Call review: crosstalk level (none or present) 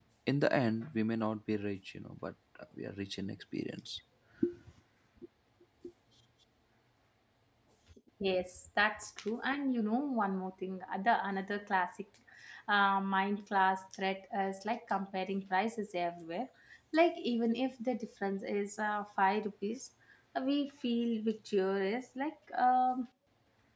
none